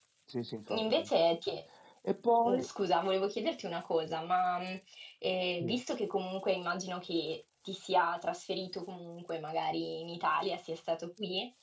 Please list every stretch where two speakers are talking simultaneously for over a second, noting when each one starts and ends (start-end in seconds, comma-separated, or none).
none